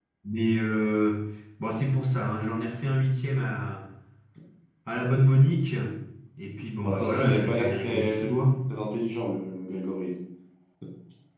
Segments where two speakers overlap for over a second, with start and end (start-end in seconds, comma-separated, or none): 6.8-8.3